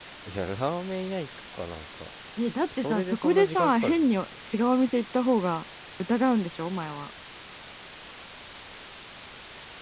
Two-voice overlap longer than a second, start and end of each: 2.8-4.0

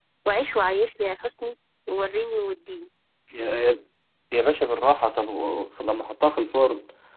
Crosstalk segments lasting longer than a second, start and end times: none

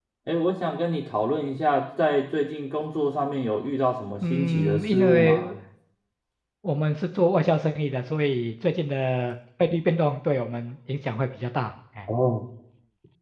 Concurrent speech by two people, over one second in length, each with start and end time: 4.3-5.5

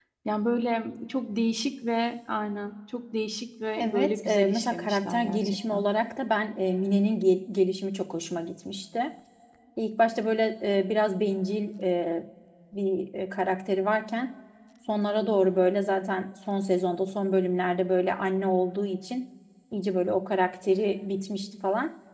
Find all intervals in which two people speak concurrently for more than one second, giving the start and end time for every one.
3.8-5.8

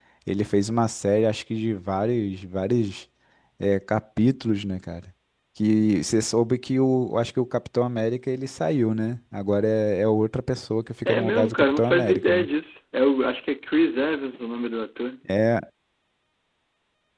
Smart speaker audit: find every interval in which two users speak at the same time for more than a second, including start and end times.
11.1-12.5

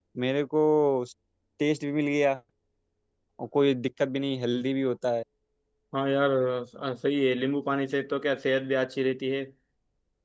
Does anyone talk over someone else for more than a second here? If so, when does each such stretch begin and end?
none

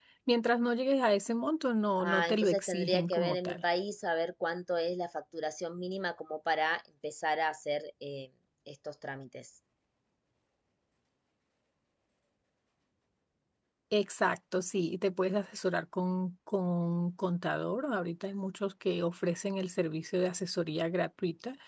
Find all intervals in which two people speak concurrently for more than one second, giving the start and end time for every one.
2.0-3.6

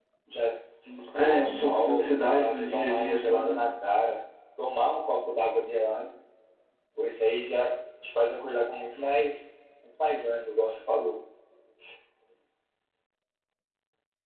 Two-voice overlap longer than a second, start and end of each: 1.2-3.7

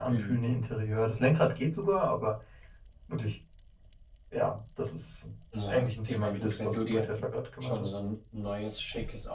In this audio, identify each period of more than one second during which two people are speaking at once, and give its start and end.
5.7-7.1

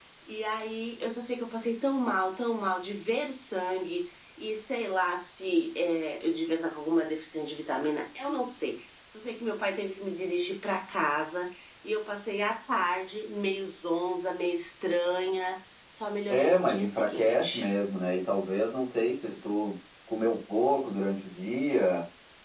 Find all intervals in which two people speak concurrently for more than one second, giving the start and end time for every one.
16.3-17.7

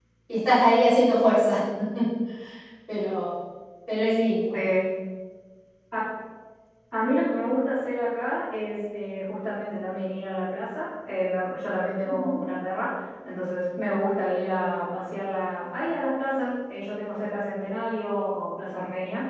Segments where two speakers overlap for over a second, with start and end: none

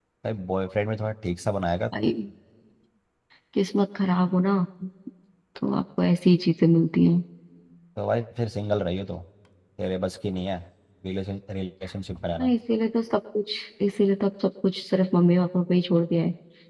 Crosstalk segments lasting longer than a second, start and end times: none

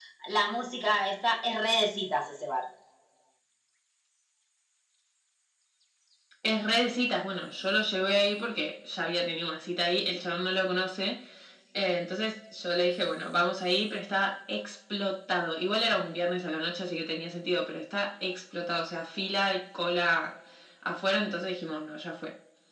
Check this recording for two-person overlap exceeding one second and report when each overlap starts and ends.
none

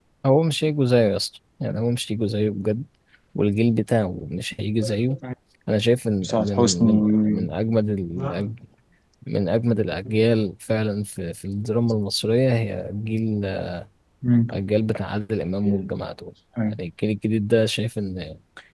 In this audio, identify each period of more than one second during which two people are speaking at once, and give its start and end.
6.2-7.5

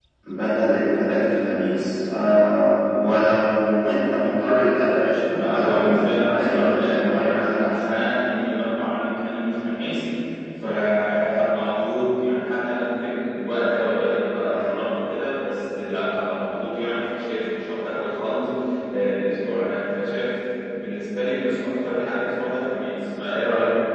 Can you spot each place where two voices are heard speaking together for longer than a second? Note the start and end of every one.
5.3-7.8

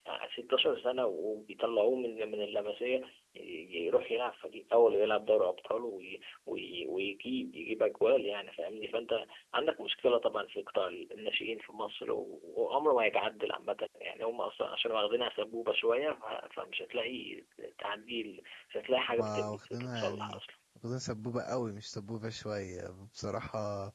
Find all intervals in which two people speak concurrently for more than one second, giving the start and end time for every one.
19.2-20.4

